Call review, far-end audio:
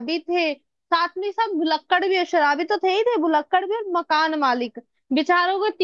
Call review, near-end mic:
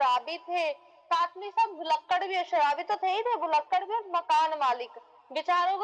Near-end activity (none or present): none